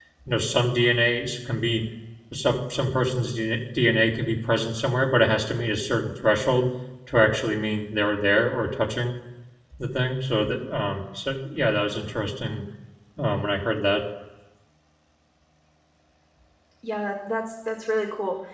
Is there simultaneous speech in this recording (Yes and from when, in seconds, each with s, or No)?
No